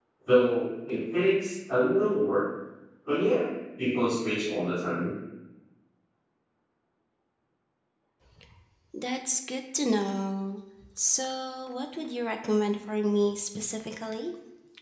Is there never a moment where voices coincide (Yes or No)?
Yes